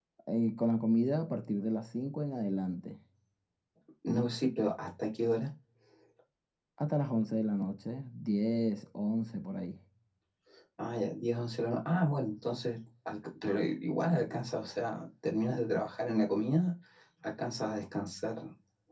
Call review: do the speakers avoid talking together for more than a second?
Yes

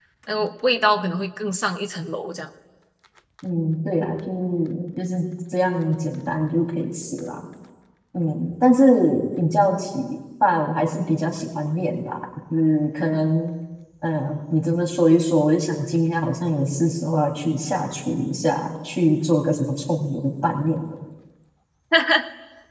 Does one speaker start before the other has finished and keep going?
No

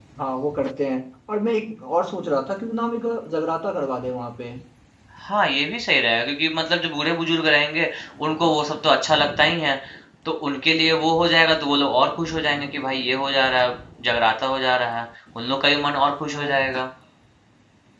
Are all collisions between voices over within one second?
Yes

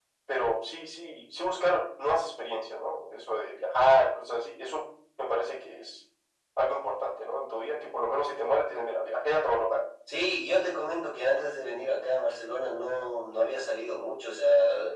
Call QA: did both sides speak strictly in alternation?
Yes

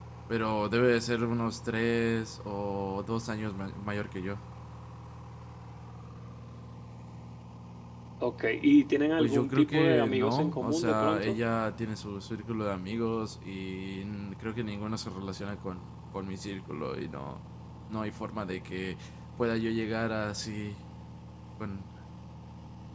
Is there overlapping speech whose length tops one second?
Yes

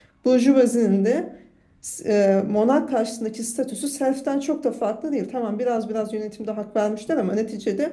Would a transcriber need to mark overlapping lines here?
No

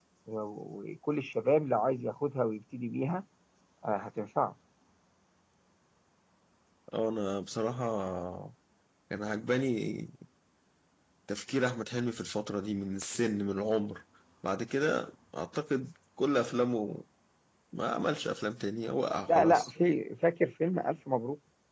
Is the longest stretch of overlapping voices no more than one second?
Yes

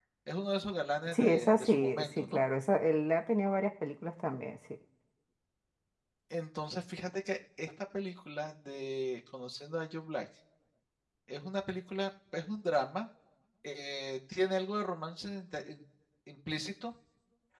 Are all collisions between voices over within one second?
No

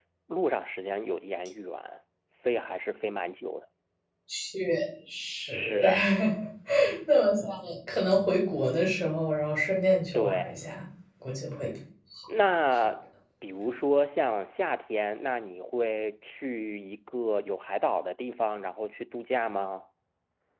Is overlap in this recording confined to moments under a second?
Yes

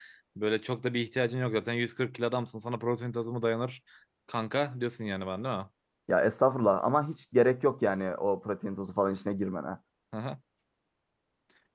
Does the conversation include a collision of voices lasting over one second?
No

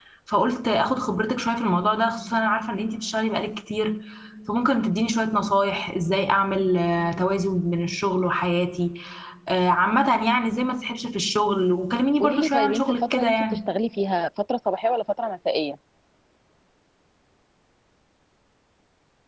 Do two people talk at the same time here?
Yes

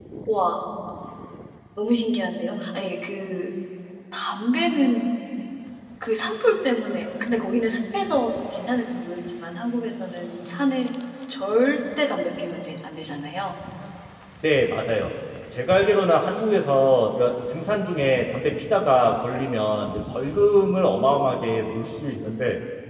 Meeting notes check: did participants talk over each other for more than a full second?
No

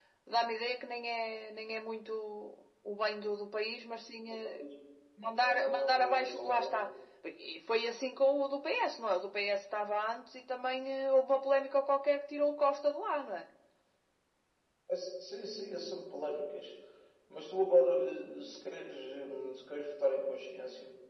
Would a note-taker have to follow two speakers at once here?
Yes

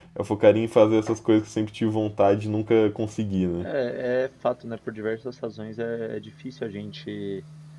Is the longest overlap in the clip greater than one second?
No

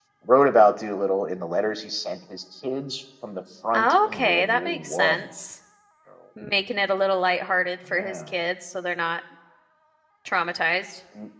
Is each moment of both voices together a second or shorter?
No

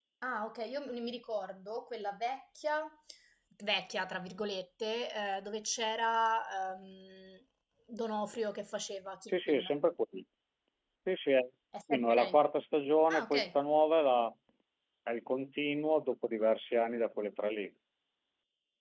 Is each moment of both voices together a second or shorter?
Yes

